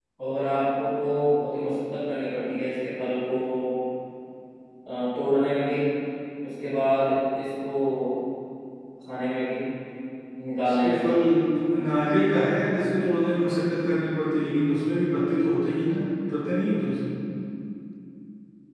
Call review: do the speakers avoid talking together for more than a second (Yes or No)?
Yes